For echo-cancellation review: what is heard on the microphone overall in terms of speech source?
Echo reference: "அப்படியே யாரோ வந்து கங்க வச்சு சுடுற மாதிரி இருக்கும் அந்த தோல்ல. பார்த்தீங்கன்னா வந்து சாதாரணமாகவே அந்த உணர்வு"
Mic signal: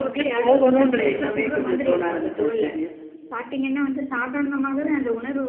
both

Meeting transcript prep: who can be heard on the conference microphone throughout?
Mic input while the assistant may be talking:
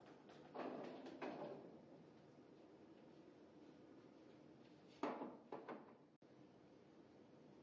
neither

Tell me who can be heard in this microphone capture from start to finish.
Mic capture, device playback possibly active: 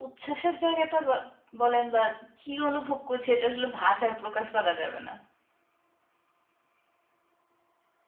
echo only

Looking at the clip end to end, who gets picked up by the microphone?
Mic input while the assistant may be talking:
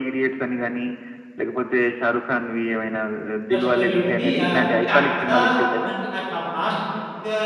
both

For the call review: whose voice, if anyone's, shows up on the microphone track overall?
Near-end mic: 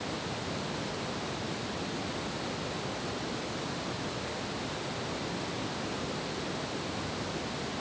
neither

